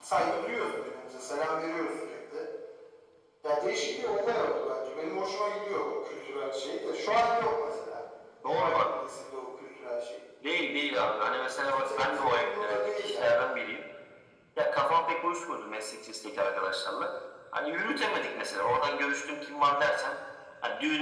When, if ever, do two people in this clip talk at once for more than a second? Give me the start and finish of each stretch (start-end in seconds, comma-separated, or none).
11.7-13.4